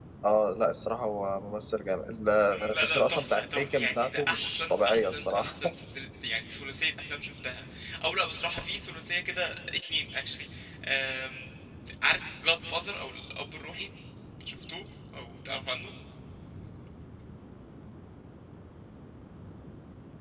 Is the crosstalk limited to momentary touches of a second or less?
No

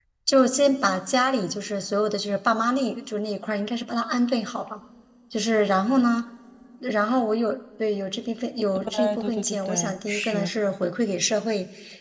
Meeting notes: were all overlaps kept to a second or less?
No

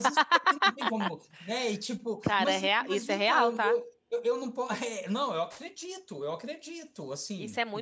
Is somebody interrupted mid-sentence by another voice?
Yes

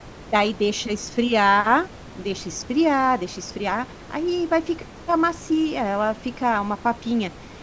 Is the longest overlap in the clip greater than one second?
No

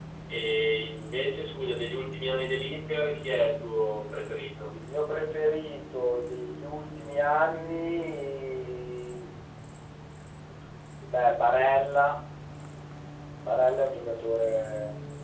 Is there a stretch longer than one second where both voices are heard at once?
No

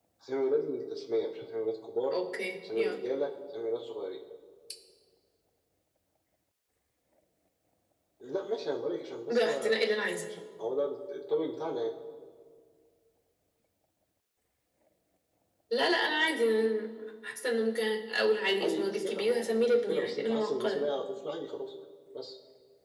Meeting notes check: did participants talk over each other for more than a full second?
Yes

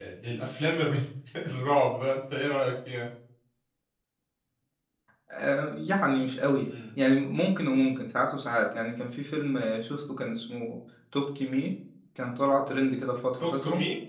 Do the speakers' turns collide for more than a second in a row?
No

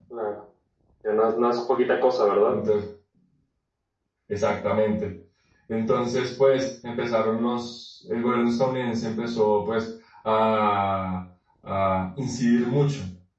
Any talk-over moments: No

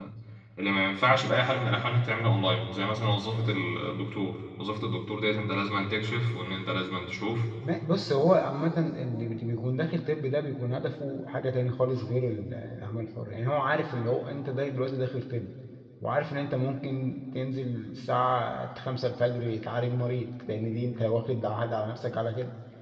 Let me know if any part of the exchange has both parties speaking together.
No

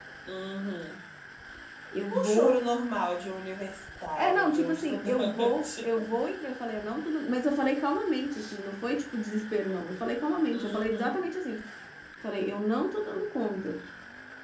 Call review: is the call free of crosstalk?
No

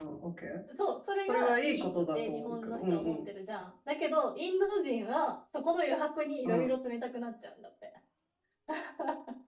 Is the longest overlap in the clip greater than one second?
Yes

